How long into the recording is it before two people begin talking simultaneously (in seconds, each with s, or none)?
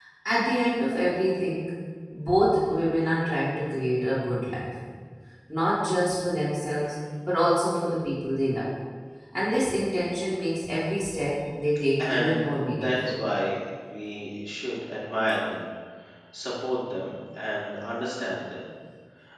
12.0 s